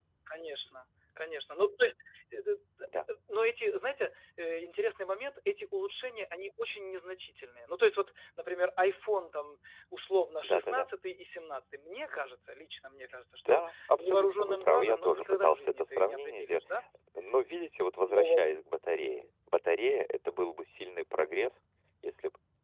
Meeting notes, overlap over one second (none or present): present